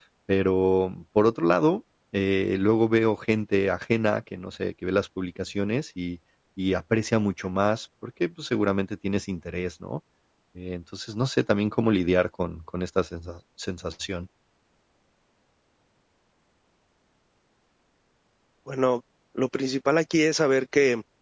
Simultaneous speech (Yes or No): No